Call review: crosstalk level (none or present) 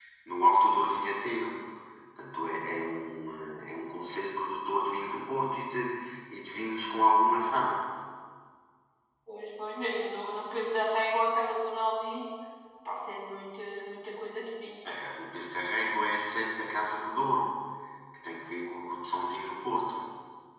none